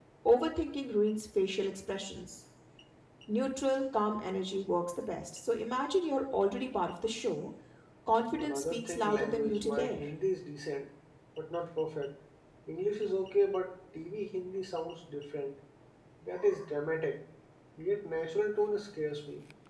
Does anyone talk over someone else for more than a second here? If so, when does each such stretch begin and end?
8.3-10.0

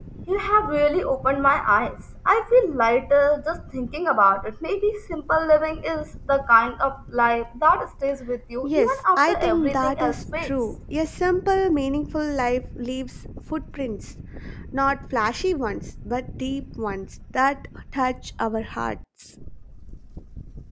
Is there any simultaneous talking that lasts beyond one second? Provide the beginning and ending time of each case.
8.7-10.5

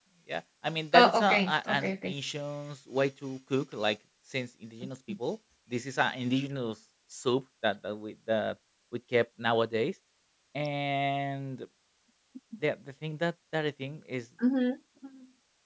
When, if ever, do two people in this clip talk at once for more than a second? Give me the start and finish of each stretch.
0.9-2.1

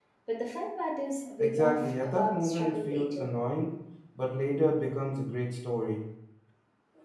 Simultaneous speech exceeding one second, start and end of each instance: 1.4-3.4

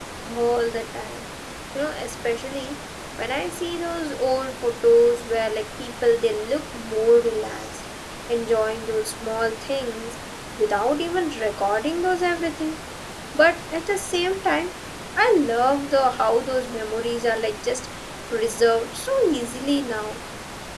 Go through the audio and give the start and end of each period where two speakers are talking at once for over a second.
none

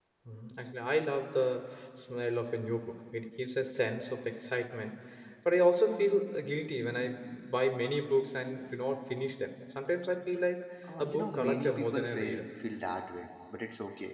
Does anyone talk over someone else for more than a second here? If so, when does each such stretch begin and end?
11.0-12.4

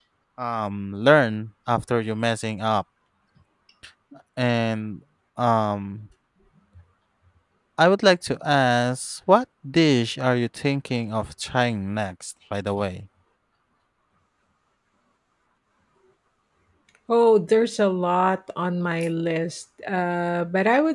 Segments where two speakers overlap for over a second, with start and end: none

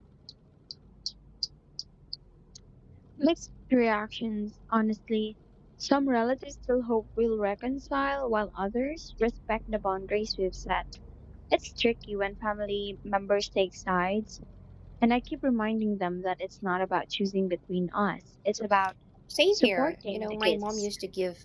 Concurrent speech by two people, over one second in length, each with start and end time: 19.5-20.9

